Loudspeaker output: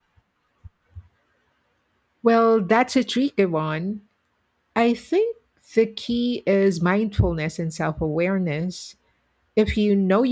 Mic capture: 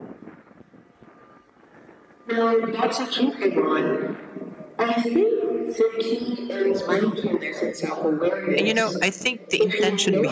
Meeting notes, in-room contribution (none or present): present